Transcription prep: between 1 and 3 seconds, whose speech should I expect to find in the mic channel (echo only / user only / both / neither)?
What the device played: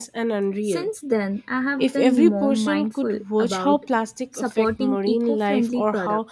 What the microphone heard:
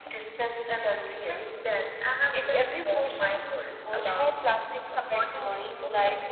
echo only